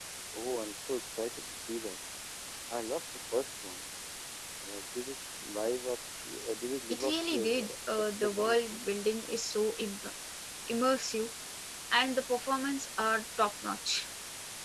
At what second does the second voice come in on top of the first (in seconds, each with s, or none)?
6.9 s